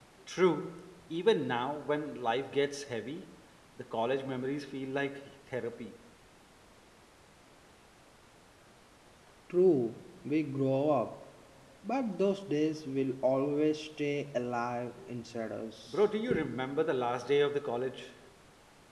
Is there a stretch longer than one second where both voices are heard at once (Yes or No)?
No